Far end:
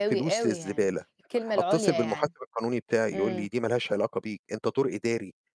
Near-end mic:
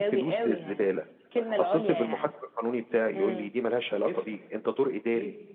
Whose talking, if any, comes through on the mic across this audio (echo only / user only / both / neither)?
both